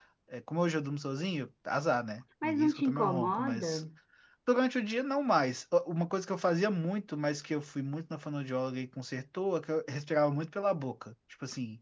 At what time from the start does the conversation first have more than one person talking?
2.4 s

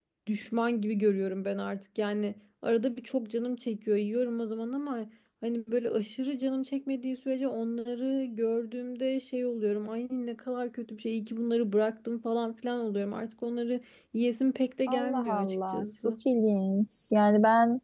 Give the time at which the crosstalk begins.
14.9 s

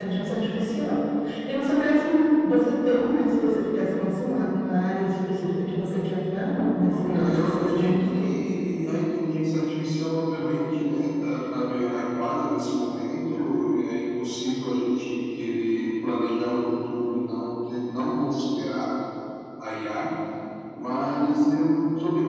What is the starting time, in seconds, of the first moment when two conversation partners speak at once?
6.9 s

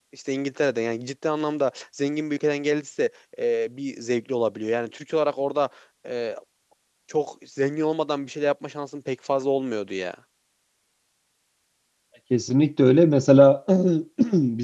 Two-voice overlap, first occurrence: none

